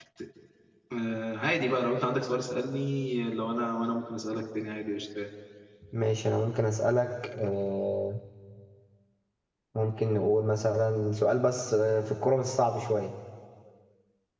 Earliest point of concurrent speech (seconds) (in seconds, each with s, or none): none